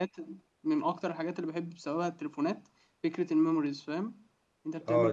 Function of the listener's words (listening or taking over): taking over